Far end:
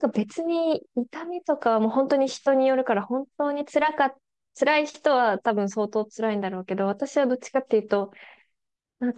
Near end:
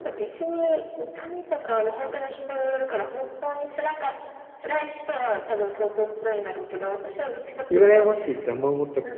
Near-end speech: present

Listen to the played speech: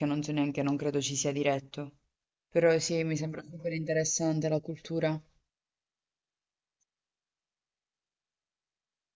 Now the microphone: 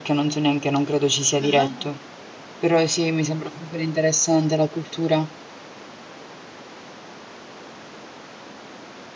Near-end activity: present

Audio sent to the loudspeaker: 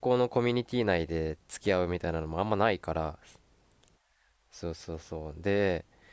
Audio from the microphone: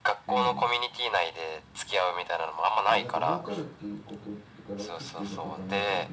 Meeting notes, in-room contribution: present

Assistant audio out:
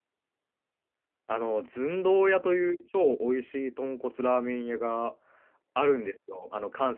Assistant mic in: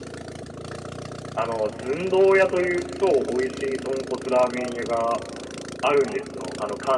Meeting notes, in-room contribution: none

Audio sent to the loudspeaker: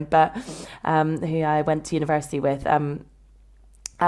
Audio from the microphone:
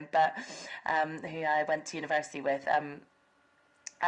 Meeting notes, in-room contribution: none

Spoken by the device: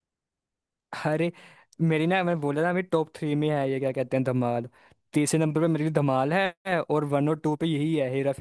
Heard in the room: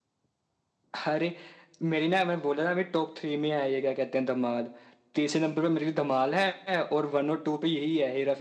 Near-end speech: none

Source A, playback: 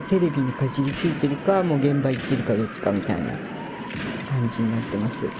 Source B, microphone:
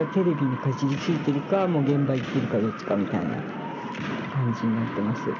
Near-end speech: none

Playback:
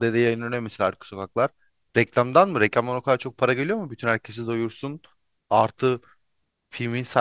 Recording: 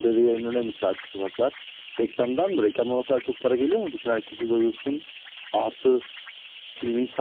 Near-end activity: none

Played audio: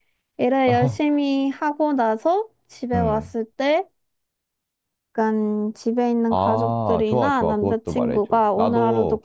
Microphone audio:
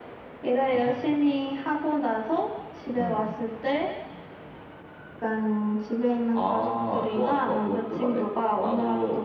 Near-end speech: none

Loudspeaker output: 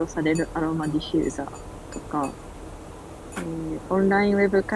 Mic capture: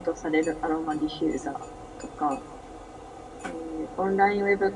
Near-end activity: none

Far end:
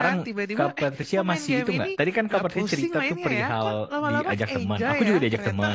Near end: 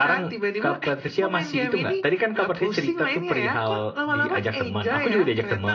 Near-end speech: none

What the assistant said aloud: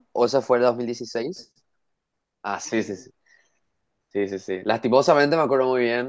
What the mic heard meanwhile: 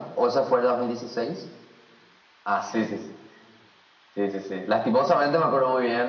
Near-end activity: none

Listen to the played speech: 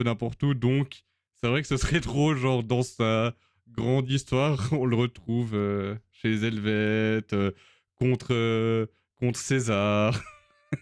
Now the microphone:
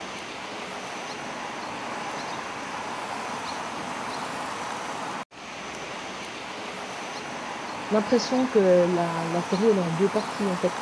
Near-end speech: present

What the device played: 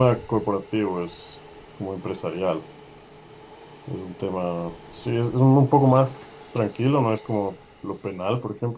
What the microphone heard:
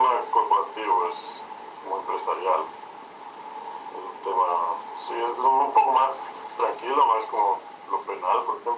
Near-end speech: none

